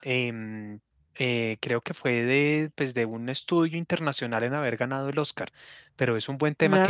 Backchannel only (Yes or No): Yes